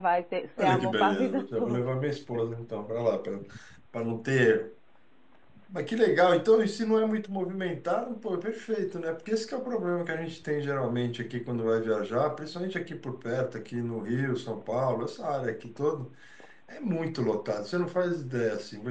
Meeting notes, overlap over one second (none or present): present